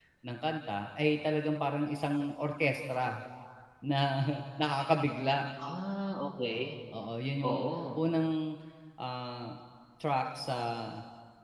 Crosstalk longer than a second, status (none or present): none